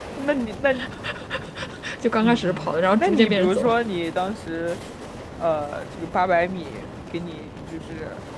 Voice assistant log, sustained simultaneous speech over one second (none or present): present